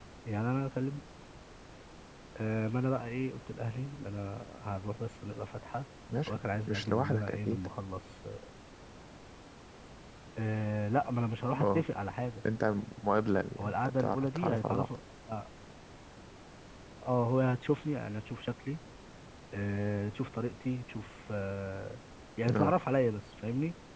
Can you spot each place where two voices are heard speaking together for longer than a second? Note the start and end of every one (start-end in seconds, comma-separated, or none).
6.3-7.7, 13.6-14.9